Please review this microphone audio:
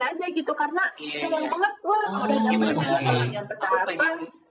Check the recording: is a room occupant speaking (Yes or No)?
Yes